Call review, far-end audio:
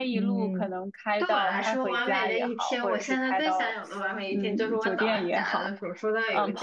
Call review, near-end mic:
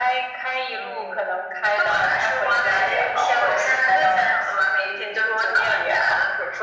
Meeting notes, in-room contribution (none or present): none